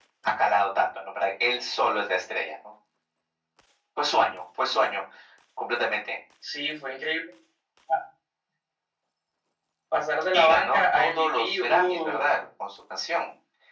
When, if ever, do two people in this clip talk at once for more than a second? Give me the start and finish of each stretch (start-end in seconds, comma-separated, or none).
10.3-12.3